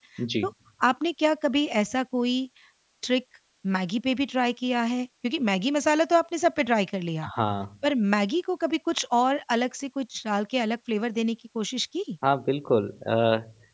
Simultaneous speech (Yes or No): No